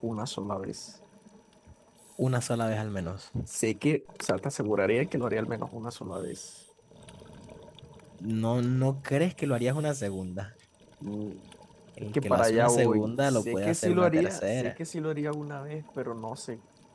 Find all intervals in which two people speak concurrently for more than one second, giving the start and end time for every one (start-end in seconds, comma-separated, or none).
12.1-14.7